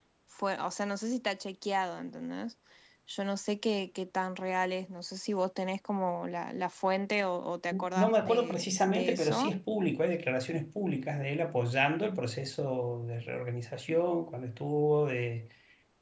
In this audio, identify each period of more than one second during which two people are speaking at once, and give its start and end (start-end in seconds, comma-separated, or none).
8.0-9.5